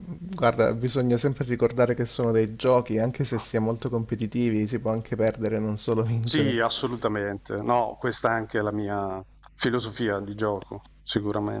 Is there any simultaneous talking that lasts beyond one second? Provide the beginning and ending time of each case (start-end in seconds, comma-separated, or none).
none